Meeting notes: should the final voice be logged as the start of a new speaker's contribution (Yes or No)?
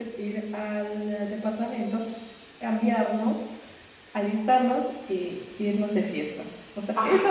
No